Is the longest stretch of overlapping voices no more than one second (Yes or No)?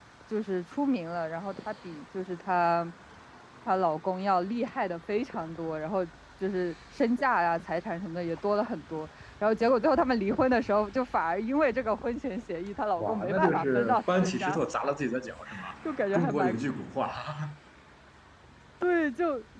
No